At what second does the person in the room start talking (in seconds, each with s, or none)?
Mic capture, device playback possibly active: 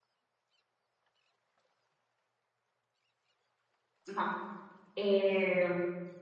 4.1 s